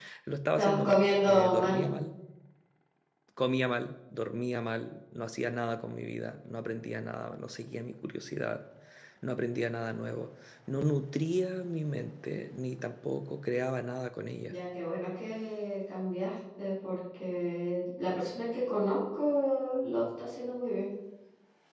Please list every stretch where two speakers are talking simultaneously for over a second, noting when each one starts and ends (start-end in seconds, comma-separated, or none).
0.6-1.9